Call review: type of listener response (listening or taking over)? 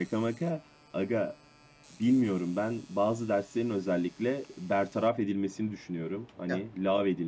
listening